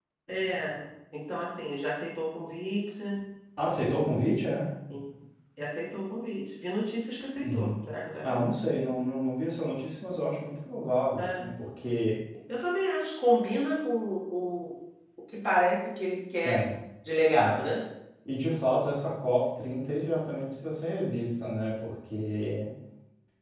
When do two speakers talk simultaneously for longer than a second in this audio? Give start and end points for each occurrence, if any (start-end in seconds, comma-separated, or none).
none